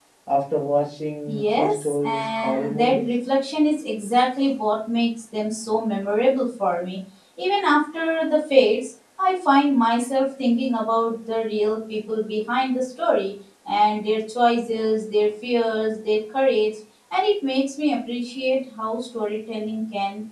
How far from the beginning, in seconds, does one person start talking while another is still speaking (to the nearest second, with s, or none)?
1 s